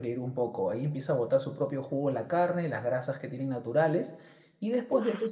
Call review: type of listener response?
listening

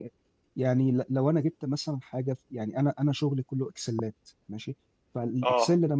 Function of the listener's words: listening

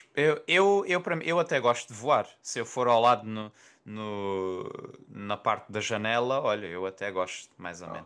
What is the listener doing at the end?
taking over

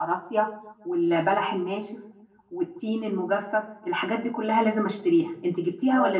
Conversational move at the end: taking over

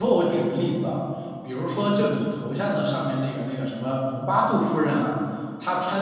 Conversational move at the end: listening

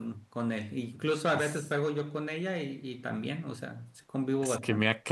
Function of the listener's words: taking over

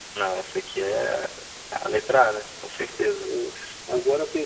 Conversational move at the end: taking over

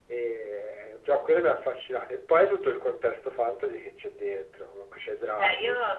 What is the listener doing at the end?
taking over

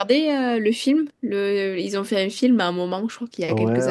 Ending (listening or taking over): taking over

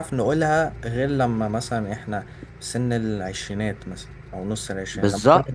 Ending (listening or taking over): taking over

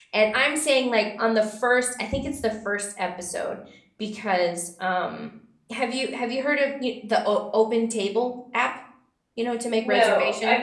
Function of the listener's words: taking over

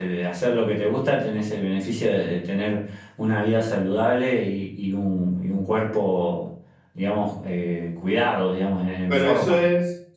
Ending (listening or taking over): taking over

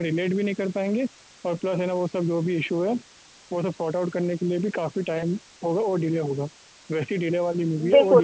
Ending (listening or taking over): taking over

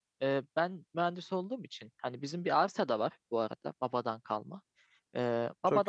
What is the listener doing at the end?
listening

